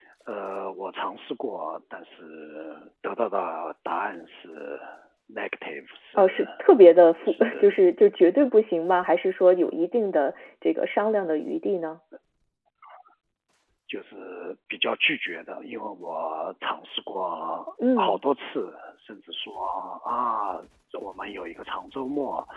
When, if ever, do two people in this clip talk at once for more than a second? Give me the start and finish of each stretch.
none

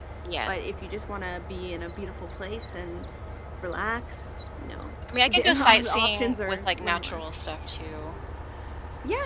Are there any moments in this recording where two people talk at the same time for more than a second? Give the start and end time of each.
5.2-7.3

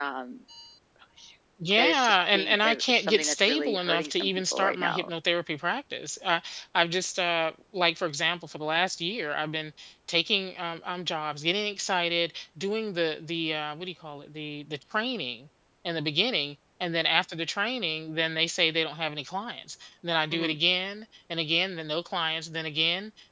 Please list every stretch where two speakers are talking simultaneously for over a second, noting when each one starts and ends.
1.8-5.1

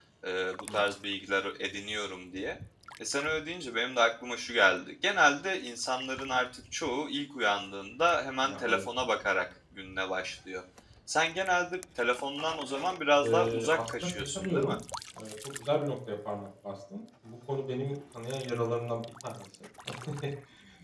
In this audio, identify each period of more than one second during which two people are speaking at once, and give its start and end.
13.2-14.8

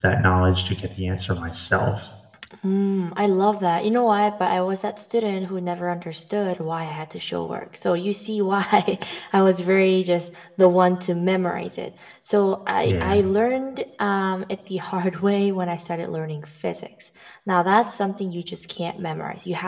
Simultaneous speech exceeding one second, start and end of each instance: none

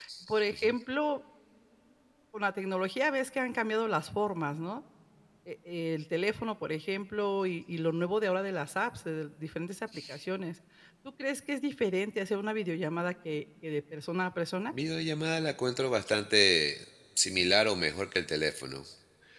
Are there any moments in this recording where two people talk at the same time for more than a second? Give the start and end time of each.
none

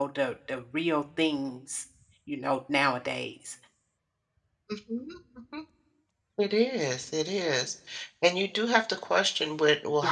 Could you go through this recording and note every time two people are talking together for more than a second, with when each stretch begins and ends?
none

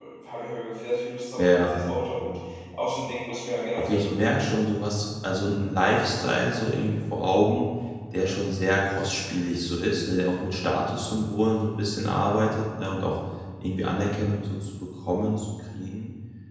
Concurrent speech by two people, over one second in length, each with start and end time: none

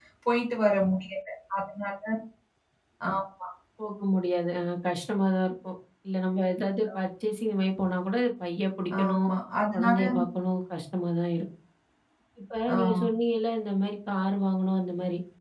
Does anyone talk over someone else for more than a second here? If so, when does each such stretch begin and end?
none

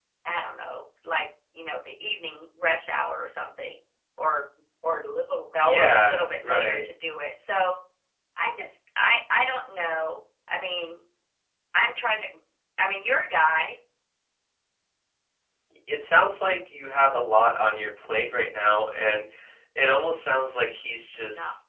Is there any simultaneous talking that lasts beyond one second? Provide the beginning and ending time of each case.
5.6-6.8

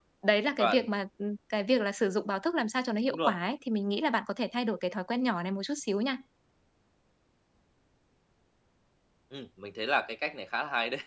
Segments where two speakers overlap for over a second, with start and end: none

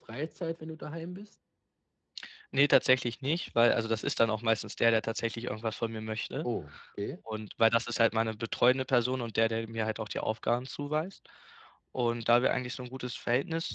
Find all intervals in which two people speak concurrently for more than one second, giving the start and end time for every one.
none

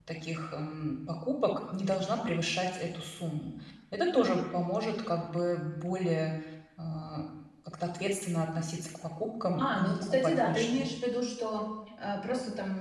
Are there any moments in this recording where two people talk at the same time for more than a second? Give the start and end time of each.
9.6-10.9

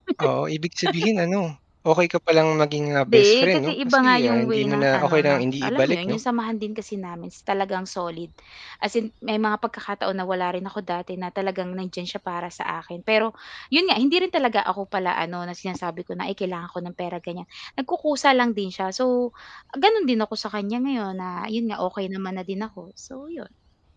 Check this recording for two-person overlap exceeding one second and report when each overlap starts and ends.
3.1-6.2

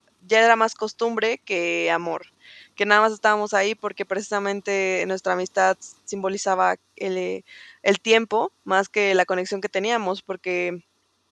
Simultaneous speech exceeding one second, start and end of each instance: none

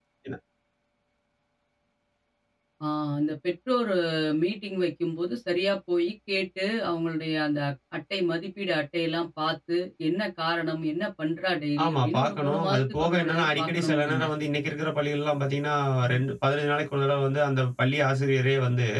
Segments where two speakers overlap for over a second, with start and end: 11.8-14.2

